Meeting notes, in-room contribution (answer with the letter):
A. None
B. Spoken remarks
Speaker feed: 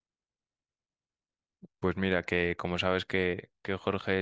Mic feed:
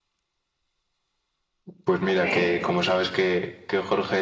B